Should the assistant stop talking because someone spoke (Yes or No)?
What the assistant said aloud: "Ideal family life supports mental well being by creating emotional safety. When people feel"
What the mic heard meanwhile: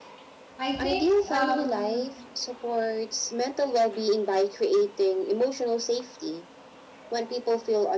Yes